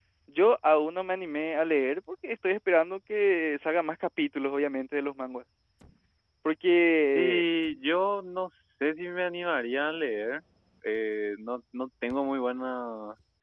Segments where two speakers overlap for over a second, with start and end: none

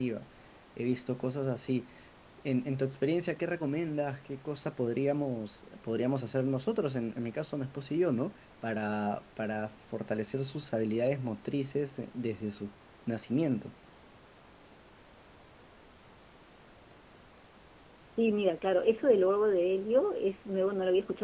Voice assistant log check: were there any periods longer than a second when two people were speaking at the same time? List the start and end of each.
none

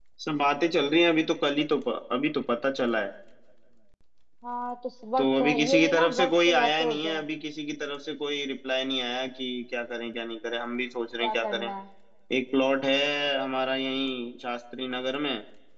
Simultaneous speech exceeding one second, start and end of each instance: 5.2-7.2

